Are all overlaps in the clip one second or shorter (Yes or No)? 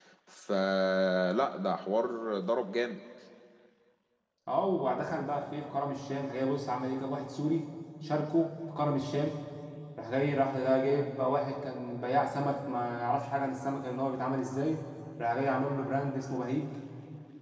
Yes